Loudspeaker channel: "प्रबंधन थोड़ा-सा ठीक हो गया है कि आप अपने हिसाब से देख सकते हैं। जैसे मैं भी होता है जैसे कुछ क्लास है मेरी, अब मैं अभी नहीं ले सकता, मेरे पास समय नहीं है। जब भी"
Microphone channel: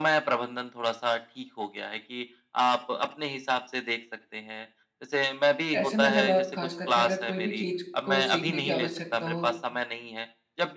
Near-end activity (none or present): present